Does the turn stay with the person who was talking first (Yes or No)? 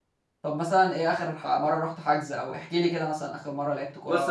No